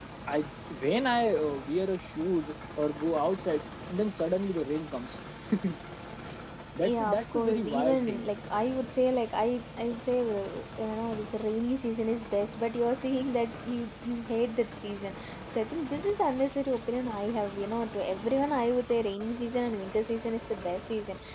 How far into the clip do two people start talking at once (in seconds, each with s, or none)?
6.8 s